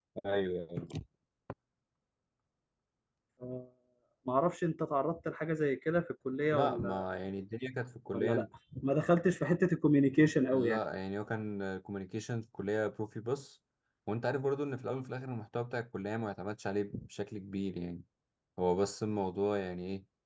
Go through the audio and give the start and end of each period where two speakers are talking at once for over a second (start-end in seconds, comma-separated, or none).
none